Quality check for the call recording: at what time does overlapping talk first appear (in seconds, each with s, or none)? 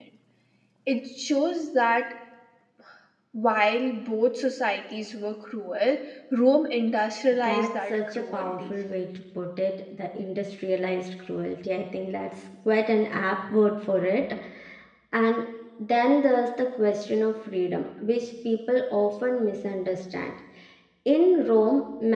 7.3 s